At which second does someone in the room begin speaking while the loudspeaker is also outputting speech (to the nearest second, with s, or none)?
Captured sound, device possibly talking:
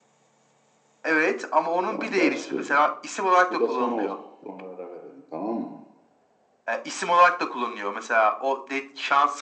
2 s